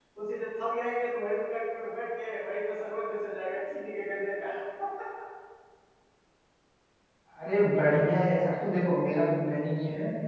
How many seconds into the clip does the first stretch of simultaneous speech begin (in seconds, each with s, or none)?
none